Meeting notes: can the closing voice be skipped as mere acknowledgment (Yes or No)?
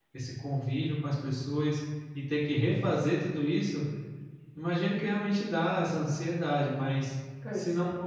Yes